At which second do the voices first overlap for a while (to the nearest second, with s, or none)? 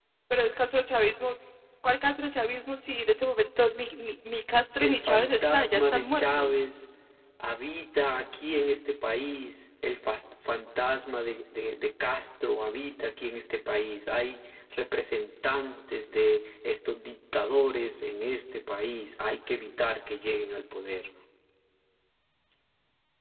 5 s